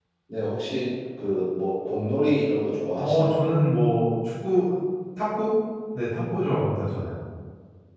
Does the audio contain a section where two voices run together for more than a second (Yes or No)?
No